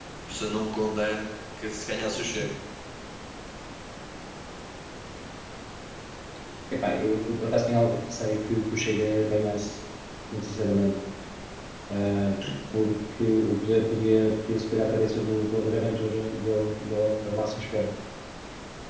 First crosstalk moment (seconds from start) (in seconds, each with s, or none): none